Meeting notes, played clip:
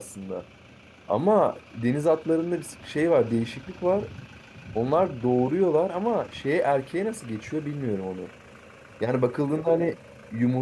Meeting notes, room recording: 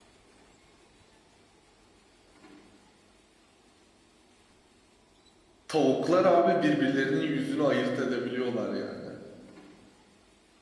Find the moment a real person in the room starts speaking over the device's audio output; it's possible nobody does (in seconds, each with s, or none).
5.7 s